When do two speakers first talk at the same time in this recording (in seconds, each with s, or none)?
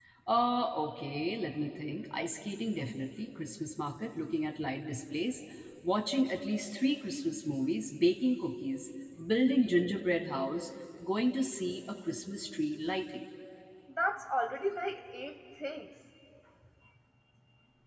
none